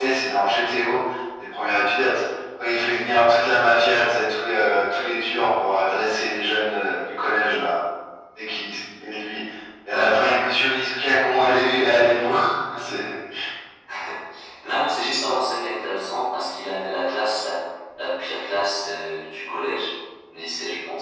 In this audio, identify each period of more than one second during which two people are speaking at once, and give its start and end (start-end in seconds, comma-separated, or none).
none